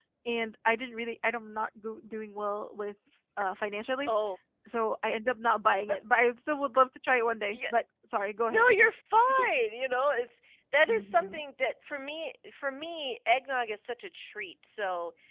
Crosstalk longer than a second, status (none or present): none